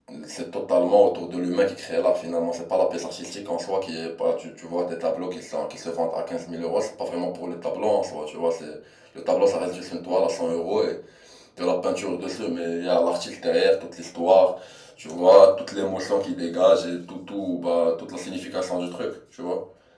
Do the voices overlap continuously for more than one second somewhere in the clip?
No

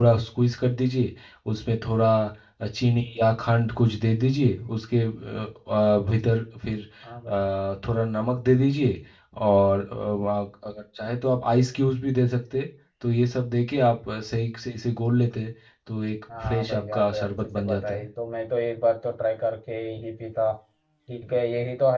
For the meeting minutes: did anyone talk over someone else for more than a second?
Yes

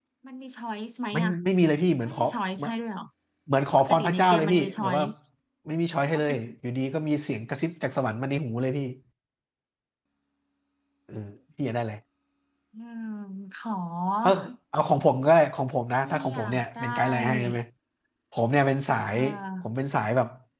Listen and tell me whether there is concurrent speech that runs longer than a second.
Yes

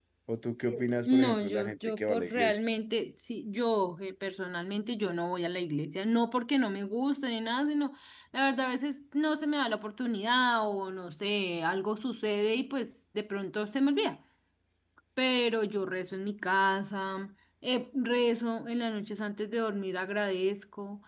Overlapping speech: Yes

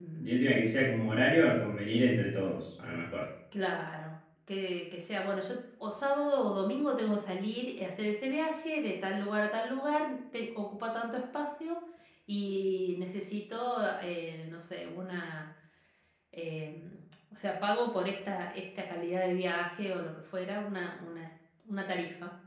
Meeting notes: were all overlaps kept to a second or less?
Yes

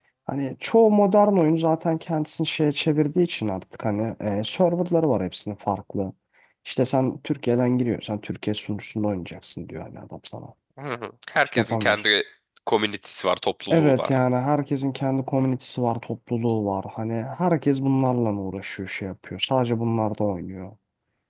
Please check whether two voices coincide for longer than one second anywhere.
No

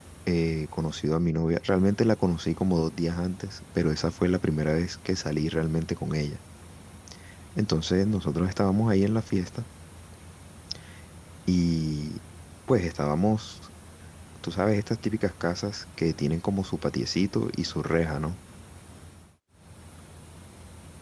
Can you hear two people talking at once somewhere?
No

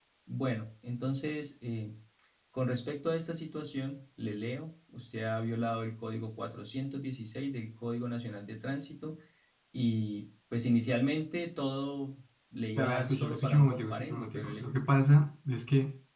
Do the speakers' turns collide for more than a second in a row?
Yes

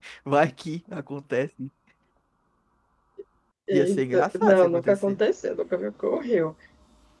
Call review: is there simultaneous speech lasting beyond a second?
Yes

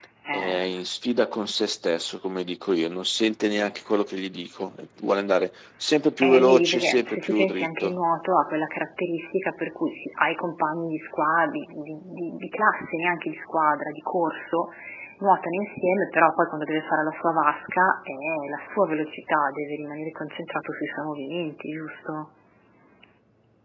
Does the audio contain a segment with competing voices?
Yes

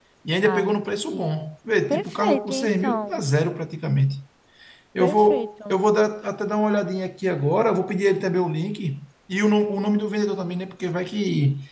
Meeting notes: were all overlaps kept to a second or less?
No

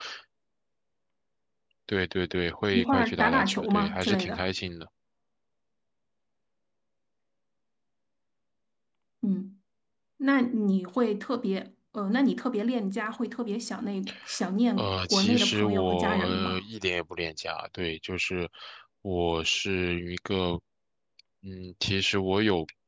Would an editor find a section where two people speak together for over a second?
Yes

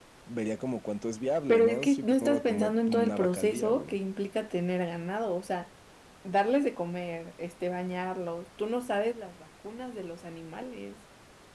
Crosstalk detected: Yes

